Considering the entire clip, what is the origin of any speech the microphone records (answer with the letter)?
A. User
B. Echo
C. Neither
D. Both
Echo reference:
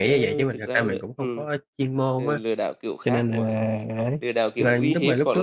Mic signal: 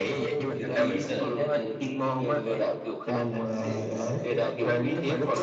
D